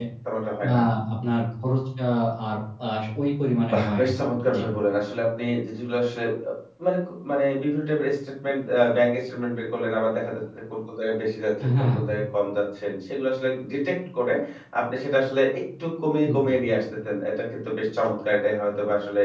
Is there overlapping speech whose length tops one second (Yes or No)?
No